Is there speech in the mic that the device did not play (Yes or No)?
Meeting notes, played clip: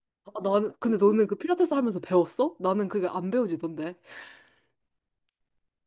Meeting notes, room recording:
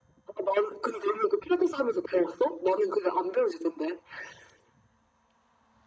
No